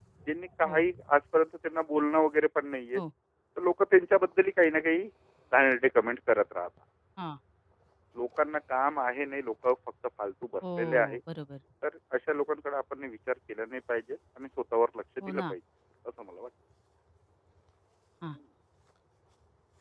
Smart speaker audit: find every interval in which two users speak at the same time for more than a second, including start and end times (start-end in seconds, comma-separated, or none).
none